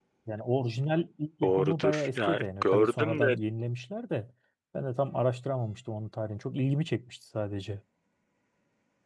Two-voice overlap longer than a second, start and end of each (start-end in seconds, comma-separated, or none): 1.4-3.4